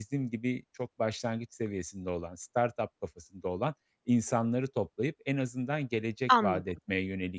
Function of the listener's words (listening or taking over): listening